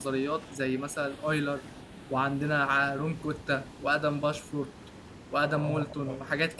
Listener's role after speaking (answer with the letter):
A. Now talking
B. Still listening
A